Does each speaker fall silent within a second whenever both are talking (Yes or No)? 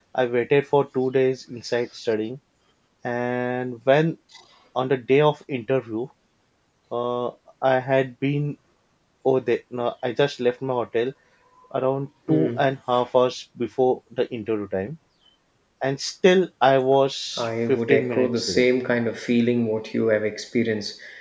No